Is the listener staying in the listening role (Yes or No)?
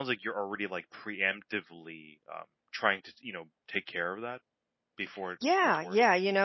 No